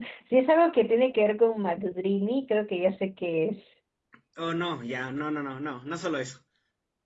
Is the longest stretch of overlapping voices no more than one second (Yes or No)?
Yes